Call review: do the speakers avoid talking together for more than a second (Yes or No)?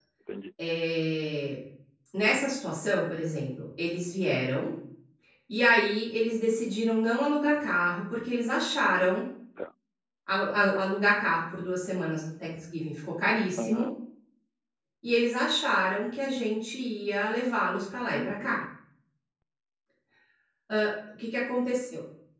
Yes